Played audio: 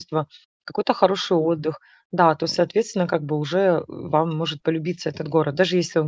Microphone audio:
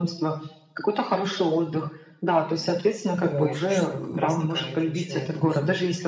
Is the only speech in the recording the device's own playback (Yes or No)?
No